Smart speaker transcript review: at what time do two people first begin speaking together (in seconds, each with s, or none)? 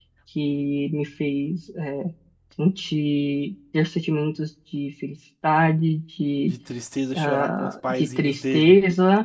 7.1 s